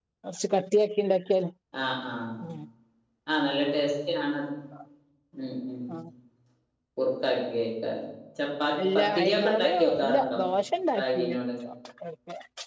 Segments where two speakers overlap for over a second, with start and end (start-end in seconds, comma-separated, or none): 8.9-10.4